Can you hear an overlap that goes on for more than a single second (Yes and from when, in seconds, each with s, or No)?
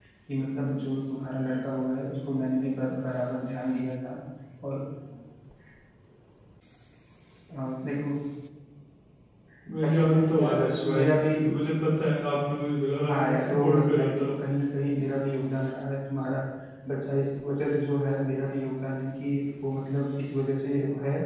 Yes, from 9.8 s